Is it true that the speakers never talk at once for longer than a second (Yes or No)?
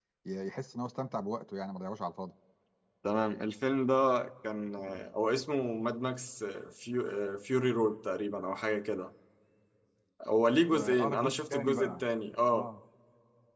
No